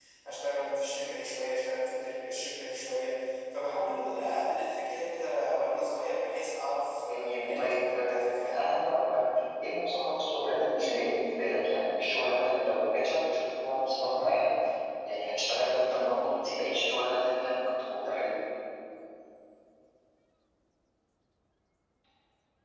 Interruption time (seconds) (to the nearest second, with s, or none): 7 s